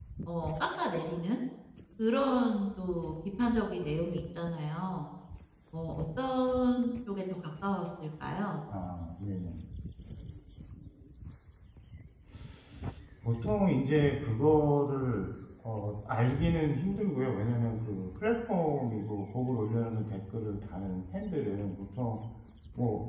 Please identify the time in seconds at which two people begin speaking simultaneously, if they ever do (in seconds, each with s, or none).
none